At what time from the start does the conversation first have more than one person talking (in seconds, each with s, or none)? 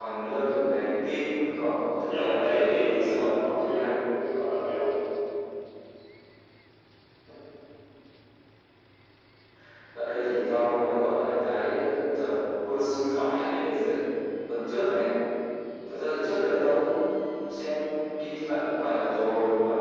2.0 s